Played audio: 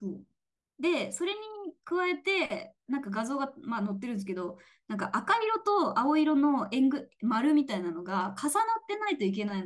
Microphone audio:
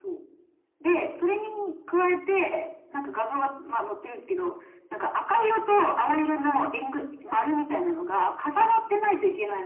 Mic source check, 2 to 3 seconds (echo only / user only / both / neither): echo only